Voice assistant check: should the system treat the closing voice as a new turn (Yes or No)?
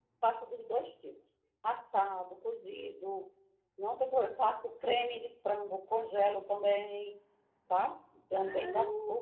No